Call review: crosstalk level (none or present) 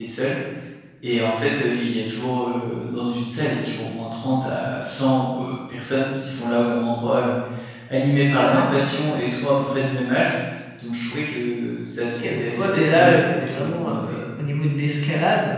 present